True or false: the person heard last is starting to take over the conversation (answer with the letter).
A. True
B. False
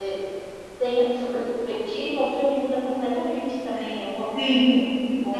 A